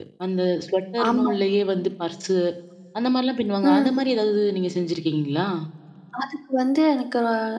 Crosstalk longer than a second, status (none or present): none